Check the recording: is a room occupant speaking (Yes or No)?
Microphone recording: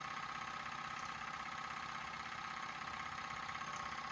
No